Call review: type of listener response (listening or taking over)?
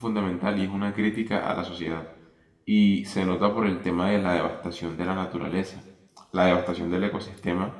listening